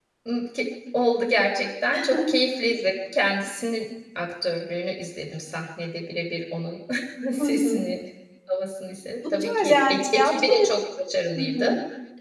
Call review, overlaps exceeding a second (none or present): present